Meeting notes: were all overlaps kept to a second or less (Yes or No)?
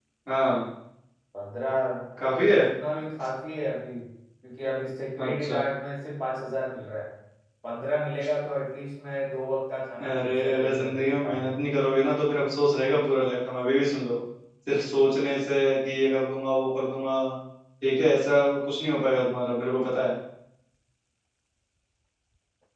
No